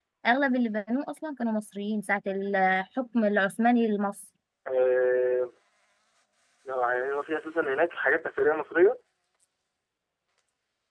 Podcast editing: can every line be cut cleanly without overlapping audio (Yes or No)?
Yes